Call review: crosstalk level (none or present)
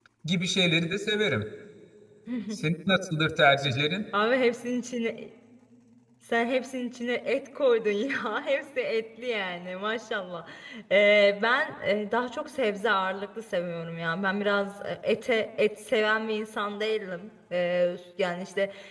none